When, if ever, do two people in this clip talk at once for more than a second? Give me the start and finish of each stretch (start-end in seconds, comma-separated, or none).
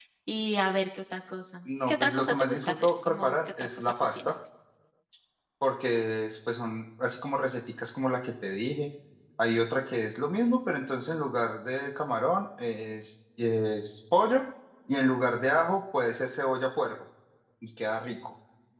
1.9-4.3